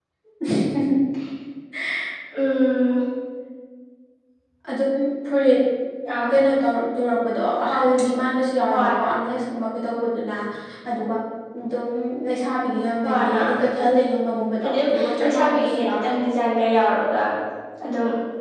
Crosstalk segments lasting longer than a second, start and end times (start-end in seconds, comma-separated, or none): 14.6-16.1